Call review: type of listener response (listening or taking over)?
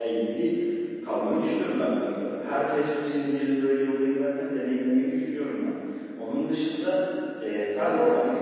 listening